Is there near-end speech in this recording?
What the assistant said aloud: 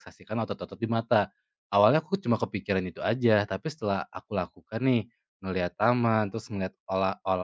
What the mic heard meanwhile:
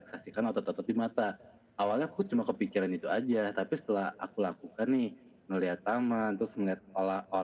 No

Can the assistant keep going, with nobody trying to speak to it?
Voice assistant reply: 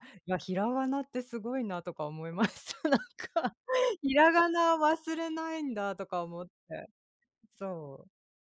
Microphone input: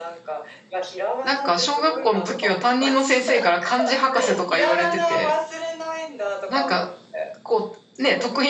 No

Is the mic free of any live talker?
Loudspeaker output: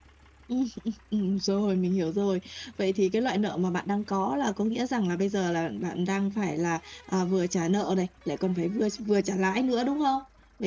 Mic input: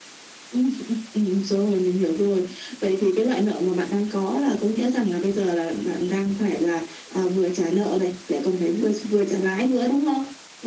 Yes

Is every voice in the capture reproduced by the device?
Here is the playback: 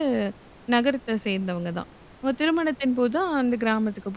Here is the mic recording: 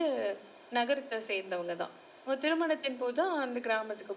Yes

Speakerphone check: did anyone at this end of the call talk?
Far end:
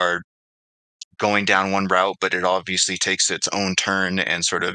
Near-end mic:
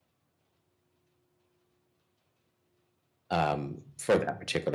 Yes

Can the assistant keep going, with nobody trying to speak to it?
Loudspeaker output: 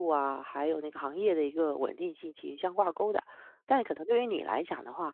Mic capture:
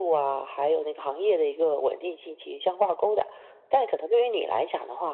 Yes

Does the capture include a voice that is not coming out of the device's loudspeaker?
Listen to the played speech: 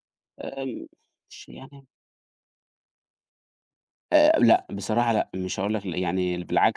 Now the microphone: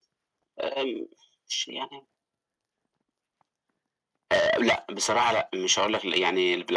No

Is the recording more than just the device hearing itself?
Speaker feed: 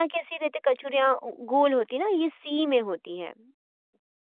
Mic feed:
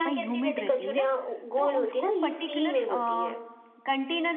Yes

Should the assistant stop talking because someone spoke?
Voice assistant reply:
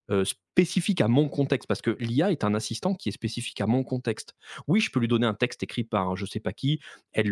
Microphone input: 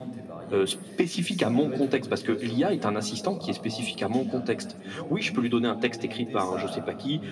Yes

